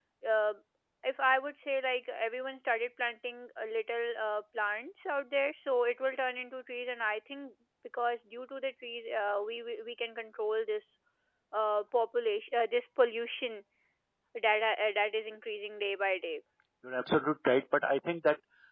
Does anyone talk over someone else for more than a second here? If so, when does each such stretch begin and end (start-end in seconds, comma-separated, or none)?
none